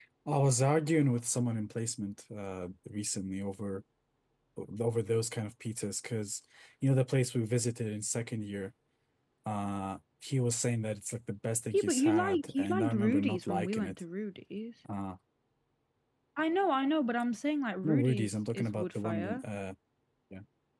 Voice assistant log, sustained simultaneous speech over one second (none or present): present